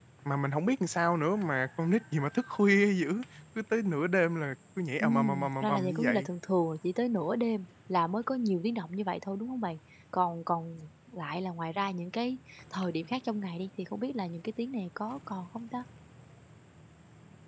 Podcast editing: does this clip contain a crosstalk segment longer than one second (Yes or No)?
Yes